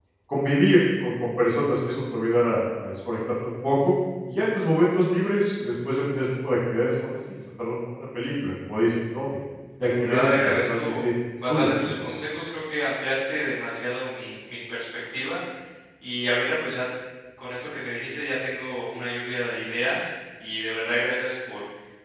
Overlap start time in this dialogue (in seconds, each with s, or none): 9.8 s